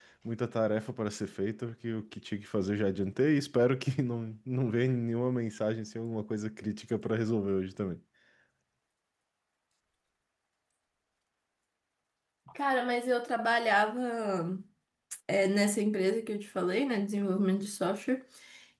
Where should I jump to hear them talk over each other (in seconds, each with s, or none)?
none